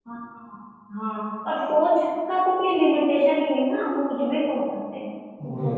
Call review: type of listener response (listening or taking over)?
listening